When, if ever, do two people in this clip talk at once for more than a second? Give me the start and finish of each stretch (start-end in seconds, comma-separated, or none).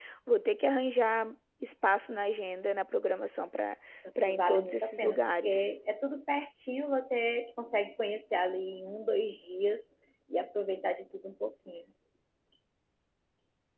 4.3-5.7